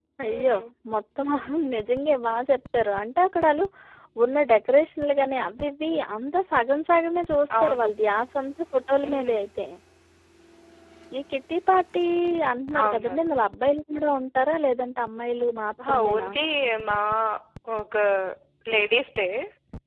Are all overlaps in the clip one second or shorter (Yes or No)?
Yes